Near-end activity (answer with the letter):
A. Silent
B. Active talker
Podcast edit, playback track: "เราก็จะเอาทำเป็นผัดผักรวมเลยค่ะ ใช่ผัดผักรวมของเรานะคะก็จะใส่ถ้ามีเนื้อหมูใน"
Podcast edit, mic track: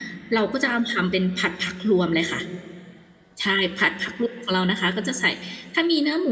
A